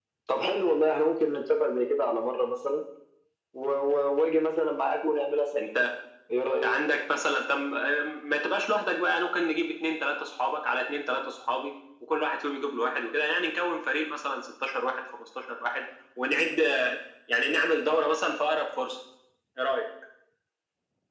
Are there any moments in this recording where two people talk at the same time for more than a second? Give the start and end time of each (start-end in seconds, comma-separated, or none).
none